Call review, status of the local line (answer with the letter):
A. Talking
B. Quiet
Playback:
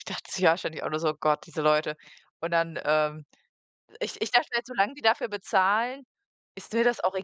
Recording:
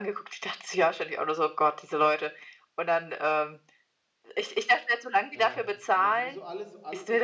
A